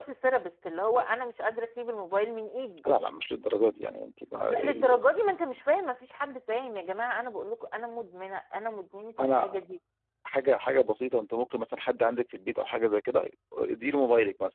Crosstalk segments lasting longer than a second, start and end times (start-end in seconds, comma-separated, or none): none